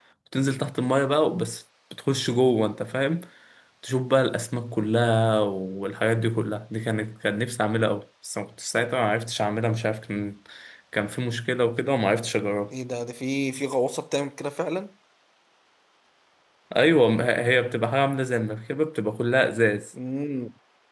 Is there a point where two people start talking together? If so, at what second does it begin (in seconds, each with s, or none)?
none